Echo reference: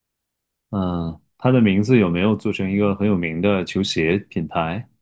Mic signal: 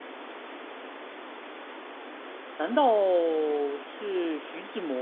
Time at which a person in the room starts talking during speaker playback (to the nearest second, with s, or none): 3 s